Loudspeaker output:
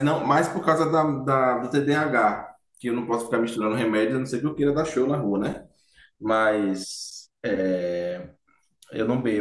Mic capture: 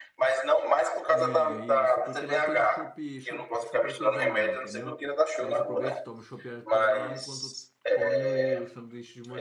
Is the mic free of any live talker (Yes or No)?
No